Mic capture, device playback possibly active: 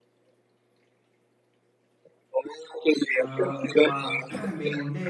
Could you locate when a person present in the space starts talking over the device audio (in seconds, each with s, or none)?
3.2 s